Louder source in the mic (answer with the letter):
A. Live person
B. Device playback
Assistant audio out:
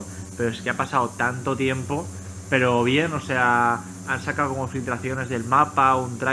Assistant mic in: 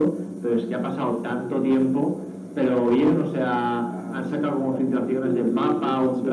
B